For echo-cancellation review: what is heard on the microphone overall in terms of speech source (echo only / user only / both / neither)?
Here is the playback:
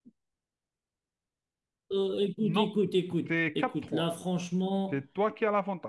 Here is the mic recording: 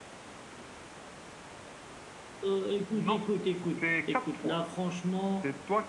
echo only